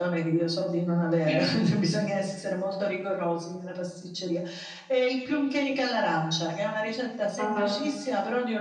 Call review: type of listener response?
listening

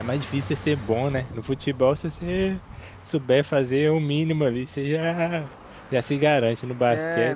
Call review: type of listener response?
taking over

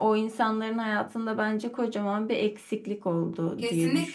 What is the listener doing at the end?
taking over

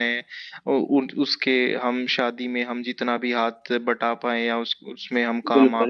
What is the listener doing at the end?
taking over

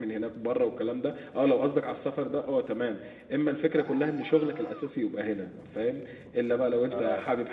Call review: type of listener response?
listening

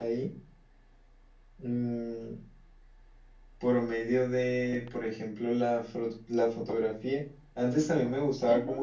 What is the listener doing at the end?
listening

